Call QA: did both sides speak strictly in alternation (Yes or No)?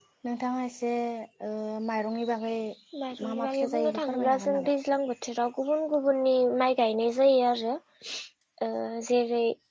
No